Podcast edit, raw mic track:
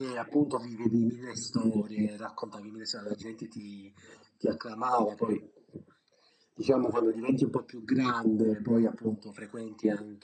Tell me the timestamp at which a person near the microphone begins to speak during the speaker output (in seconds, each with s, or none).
none